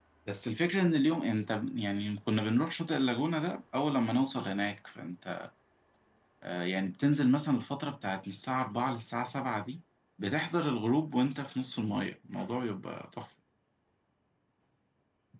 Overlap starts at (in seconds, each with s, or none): none